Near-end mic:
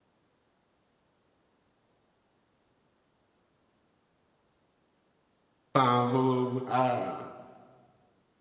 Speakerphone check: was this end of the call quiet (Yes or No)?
No